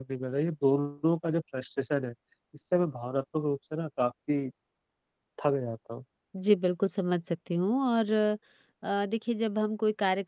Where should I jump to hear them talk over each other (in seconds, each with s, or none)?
none